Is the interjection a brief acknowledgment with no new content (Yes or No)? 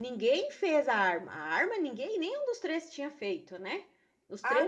No